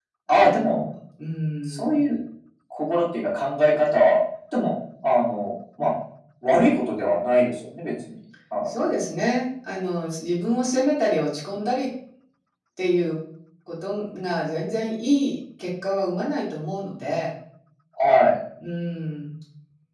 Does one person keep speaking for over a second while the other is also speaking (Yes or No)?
No